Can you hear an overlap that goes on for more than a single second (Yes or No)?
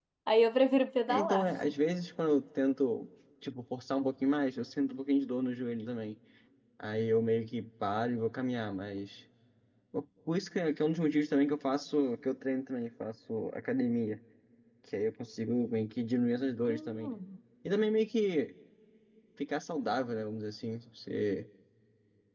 No